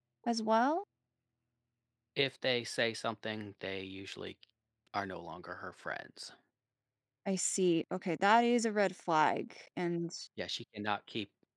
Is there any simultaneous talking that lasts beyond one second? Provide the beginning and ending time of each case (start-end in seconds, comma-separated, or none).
none